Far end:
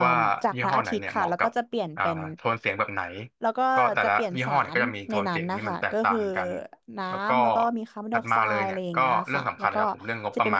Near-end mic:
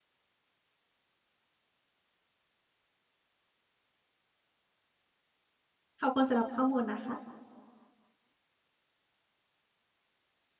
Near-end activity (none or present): present